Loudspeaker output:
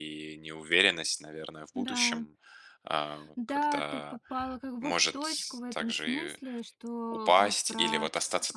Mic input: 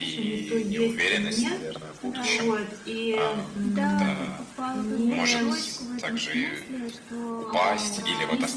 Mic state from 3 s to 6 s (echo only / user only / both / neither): both